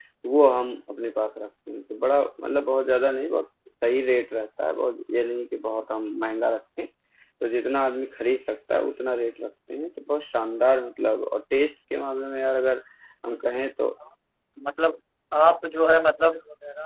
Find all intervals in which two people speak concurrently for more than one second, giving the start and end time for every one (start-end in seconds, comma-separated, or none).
none